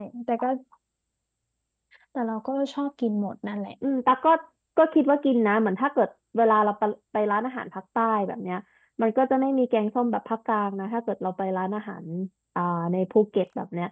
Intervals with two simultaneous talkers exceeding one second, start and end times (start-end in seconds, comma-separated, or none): none